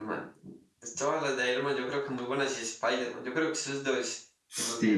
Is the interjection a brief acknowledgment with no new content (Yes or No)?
No